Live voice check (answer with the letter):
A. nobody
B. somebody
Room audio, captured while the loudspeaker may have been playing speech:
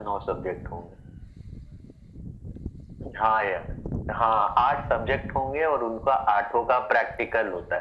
A